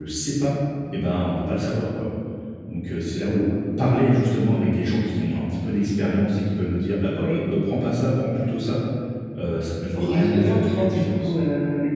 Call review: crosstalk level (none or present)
present